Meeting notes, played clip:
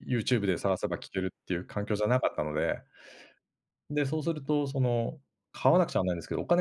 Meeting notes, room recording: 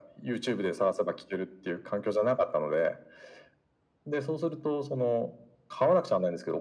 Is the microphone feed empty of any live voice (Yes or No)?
Yes